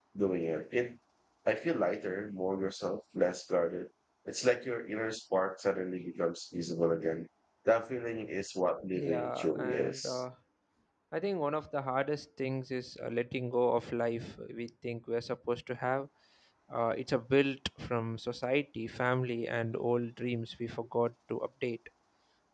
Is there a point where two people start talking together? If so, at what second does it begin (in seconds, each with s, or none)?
8.9 s